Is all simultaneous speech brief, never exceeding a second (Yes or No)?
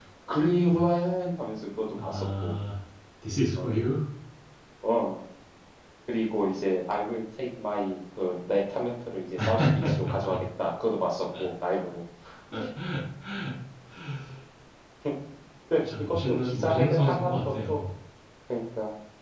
No